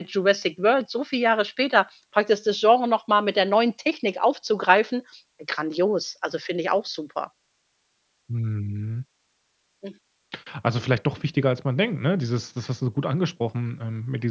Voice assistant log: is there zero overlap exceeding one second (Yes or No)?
Yes